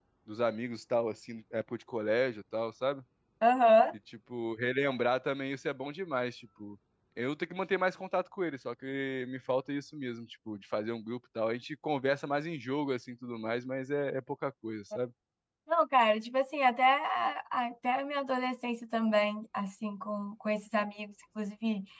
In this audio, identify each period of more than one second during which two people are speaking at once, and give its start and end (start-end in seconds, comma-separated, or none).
none